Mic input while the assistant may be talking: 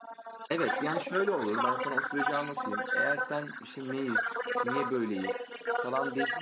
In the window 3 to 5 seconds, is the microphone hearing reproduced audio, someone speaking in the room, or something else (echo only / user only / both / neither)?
both